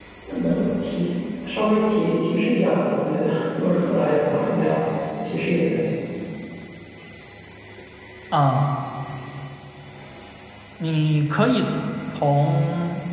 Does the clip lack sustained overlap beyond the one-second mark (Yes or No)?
Yes